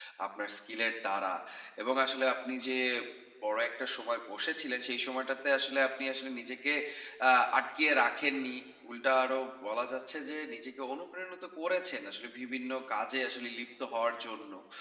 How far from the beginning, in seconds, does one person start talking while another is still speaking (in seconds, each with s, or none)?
none